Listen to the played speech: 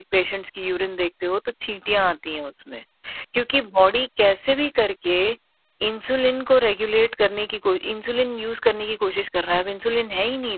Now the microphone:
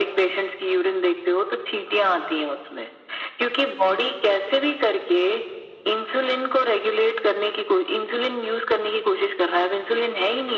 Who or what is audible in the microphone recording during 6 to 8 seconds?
echo only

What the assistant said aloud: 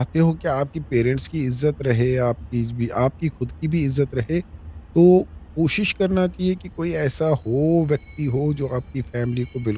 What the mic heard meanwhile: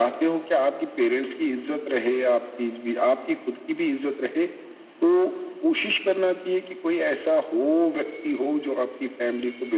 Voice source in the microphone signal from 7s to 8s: echo only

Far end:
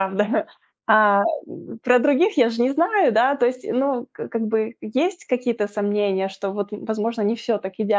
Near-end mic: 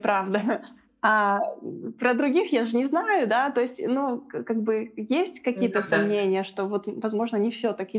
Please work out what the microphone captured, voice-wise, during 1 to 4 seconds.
echo only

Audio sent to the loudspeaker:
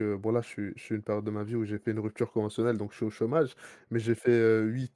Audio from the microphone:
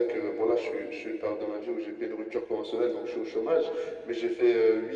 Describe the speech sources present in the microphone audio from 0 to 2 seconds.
echo only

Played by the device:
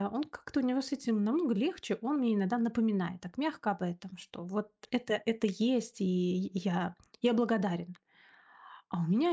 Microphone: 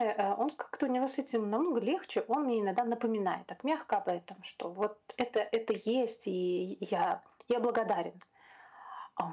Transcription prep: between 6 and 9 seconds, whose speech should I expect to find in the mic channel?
echo only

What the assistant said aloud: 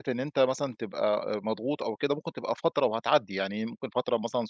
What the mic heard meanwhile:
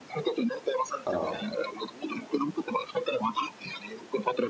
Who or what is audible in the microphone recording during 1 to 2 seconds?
both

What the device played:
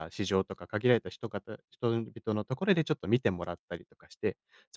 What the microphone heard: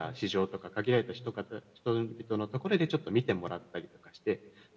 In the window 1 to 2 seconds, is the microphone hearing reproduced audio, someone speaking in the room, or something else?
echo only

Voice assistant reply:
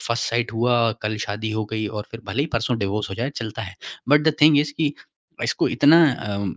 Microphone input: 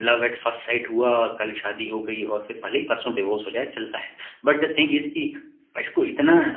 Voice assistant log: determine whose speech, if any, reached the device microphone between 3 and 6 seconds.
echo only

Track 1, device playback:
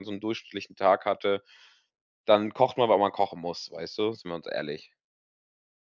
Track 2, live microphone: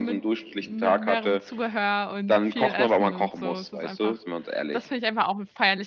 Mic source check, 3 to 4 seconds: both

